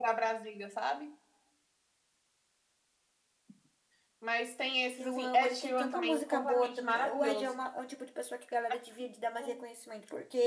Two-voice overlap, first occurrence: 5 s

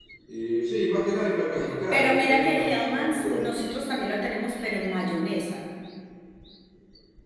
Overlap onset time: 2 s

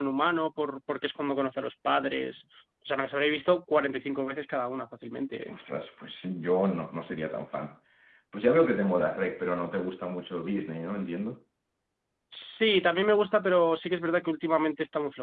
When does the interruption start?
none

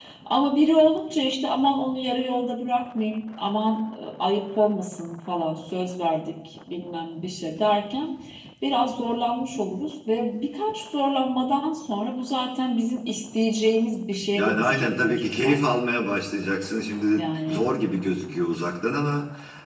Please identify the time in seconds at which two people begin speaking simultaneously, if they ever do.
14 s

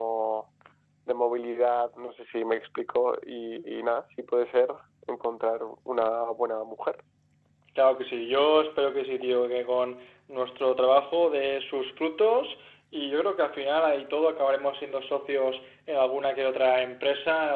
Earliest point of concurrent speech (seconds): none

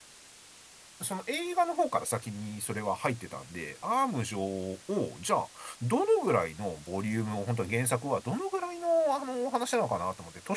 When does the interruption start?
none

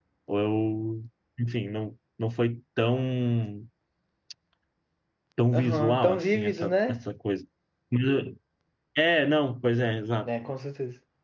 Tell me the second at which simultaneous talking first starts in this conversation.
6 s

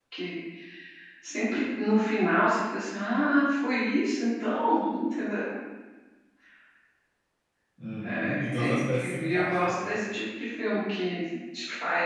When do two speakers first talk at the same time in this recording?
8 s

